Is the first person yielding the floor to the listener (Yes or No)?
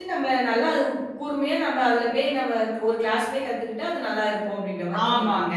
Yes